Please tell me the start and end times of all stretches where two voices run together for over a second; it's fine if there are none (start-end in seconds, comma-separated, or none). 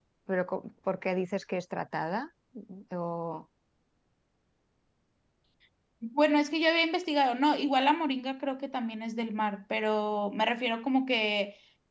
none